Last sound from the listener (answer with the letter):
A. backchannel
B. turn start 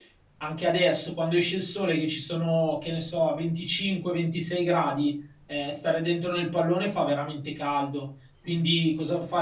A